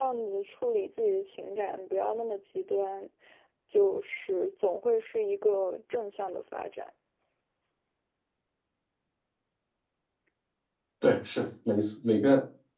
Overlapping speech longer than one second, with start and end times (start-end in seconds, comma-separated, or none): none